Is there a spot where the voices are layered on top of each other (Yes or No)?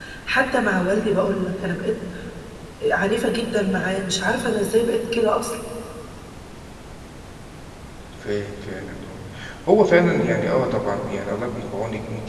No